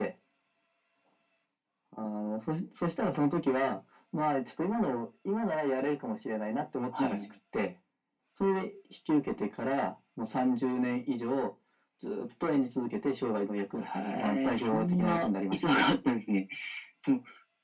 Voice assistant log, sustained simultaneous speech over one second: present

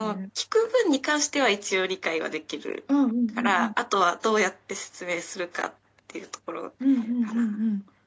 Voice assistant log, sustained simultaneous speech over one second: none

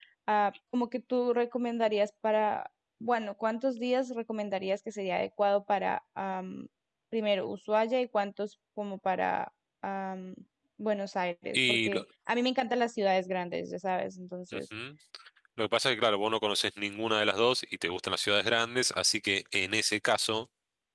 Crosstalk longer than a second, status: none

